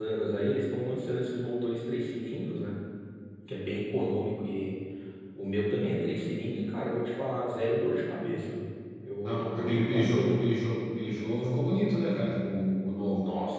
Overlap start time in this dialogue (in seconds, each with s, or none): 9.2 s